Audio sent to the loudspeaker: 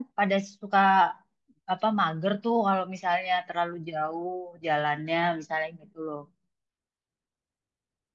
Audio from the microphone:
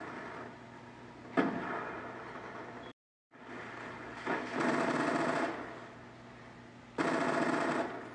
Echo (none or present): none